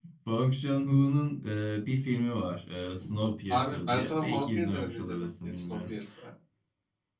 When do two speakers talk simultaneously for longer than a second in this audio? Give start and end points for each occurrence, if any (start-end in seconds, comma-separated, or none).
3.5-5.9